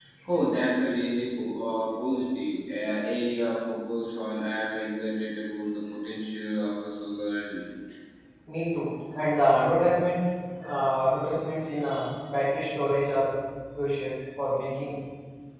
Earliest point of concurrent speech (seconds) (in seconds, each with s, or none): none